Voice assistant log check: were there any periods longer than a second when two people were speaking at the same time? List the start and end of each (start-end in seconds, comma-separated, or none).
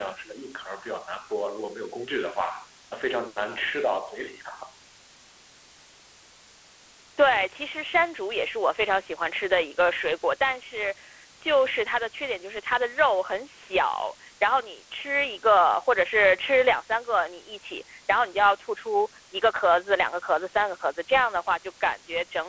none